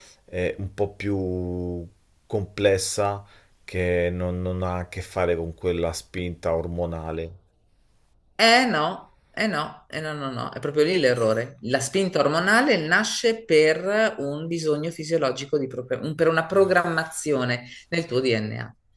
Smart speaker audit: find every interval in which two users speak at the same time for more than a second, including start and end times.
none

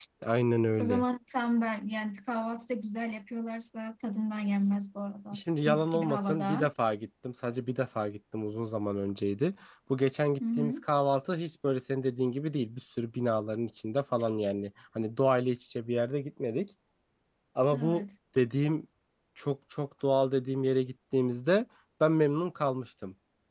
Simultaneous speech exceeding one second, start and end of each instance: 5.3-6.7

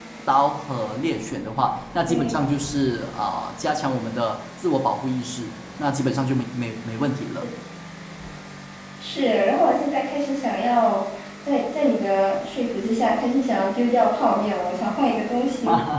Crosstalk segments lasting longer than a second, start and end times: none

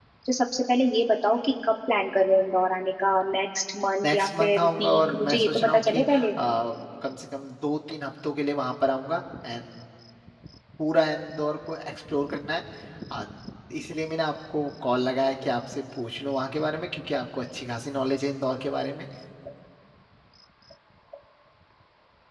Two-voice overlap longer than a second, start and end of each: 4.0-6.3

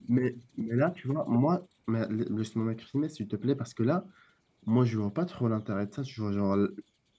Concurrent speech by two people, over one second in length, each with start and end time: none

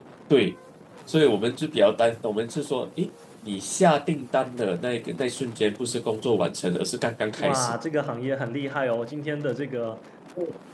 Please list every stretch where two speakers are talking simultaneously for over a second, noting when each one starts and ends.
none

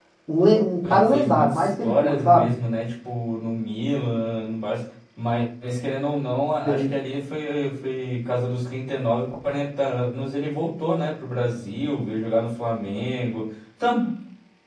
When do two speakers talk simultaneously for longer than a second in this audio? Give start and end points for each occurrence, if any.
0.8-2.5

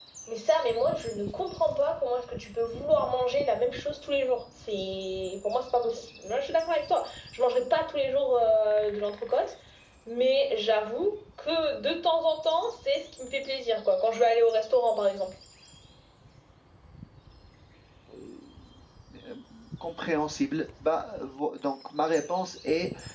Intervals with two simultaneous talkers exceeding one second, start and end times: none

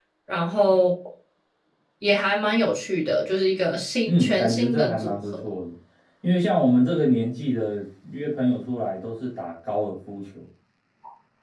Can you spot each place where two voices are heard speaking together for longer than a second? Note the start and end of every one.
4.1-5.5

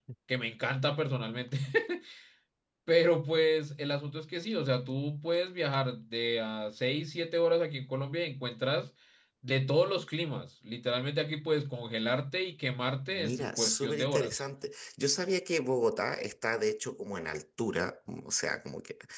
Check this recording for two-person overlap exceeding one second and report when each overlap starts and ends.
13.1-14.4

